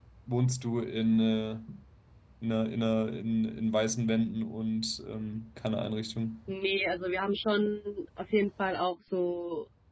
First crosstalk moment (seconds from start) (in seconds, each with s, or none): none